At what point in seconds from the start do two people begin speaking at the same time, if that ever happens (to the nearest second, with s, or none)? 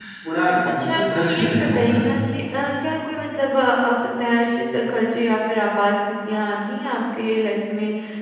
1 s